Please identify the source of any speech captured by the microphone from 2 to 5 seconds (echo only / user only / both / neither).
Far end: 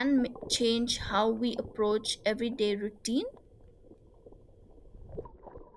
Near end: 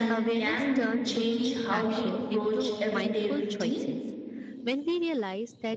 both